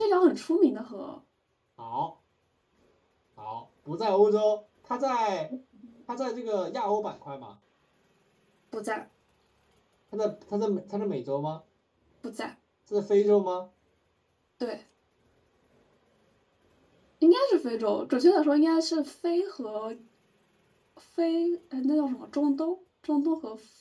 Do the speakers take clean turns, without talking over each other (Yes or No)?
Yes